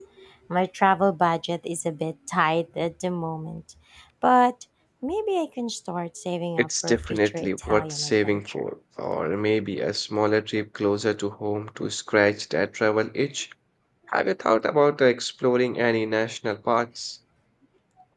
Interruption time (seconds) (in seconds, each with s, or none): 6.6 s